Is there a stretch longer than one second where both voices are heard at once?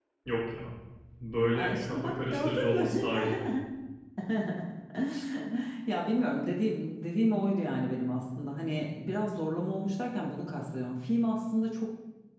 Yes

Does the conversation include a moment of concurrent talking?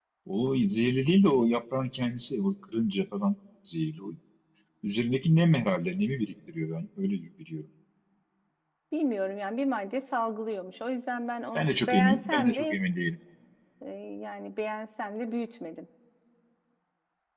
Yes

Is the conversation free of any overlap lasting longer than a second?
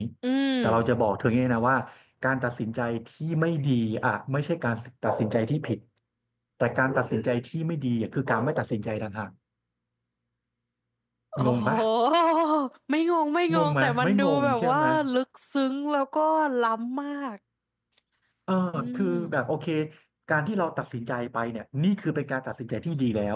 No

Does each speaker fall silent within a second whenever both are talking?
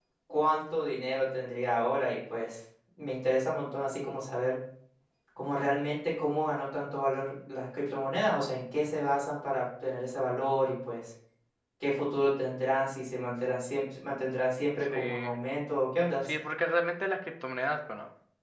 Yes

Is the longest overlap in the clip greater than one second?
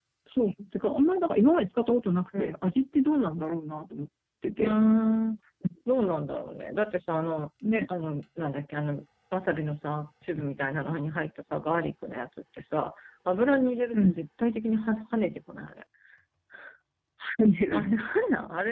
No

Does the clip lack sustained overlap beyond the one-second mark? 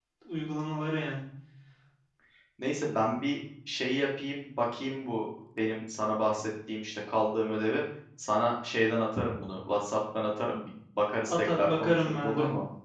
No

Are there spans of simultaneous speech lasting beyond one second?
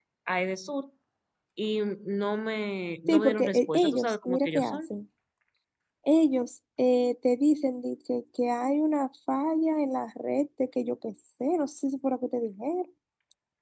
Yes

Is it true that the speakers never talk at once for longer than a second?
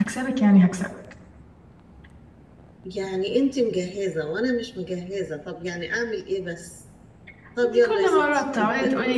No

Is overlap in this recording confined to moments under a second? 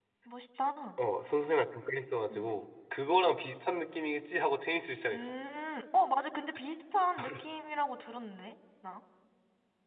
Yes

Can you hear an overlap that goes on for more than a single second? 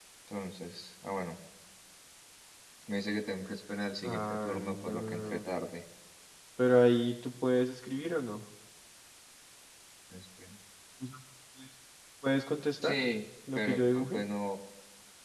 Yes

